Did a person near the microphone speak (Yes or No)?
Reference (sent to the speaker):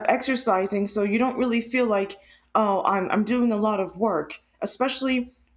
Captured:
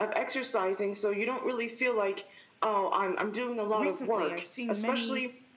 Yes